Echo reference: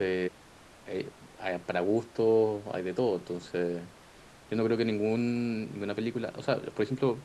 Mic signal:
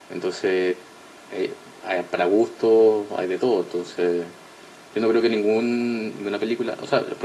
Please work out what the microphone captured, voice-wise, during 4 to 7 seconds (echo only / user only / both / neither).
echo only